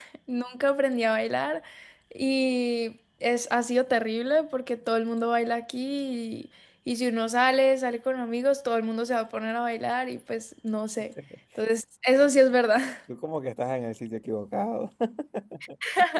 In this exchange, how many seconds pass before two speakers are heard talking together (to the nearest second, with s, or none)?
none